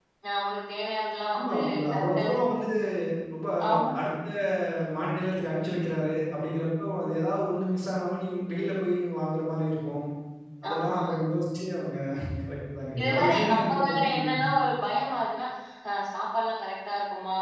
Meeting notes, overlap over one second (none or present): present